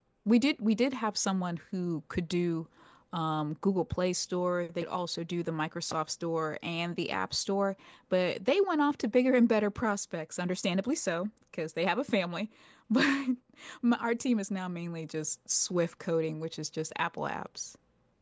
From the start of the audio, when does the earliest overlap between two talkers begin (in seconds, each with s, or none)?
none